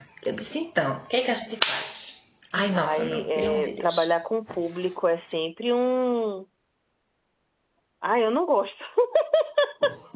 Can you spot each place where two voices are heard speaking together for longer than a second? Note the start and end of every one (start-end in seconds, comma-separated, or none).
2.8-4.1